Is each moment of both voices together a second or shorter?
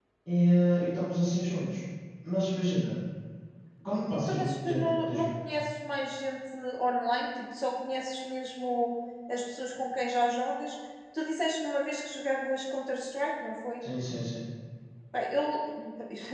No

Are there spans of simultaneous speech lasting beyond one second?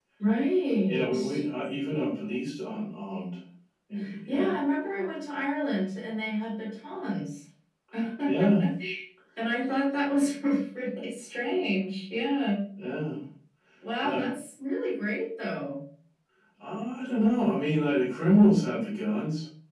No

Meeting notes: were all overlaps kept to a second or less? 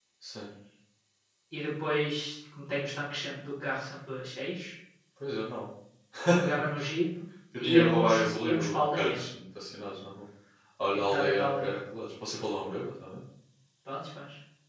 No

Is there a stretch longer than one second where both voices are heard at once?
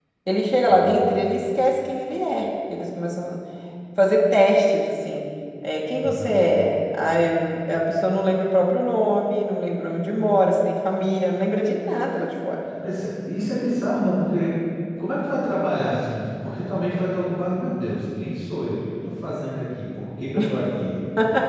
No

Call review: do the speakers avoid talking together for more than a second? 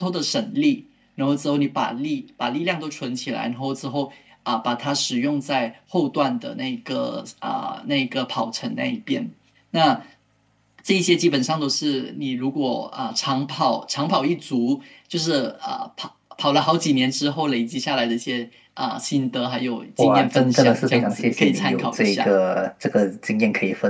No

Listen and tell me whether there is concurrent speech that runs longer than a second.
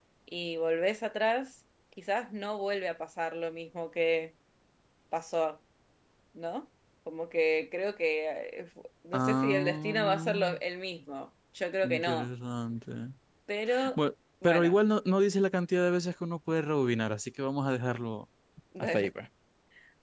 Yes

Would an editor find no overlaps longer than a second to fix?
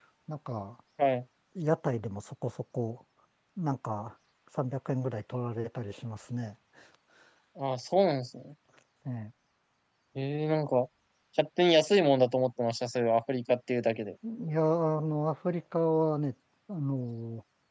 Yes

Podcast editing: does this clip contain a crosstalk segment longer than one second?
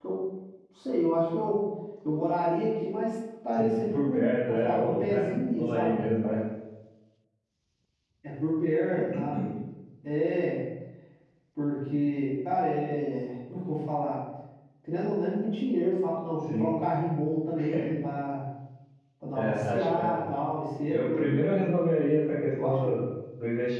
Yes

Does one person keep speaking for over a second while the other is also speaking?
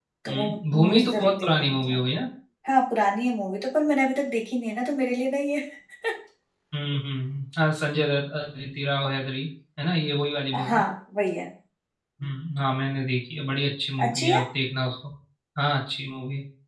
Yes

